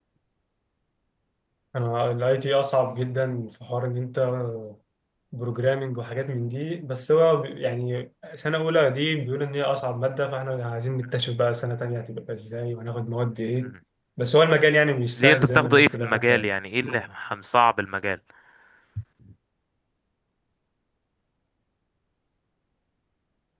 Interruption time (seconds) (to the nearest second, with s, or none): 15 s